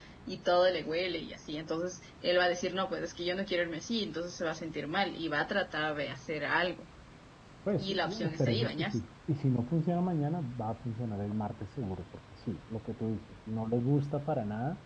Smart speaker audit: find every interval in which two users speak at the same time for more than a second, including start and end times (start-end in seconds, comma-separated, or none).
7.8-9.0